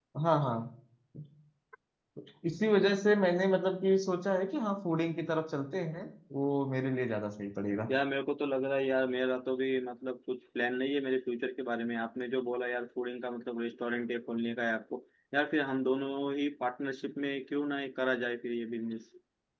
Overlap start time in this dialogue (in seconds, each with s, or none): none